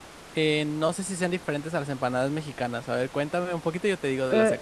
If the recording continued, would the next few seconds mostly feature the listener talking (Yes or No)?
Yes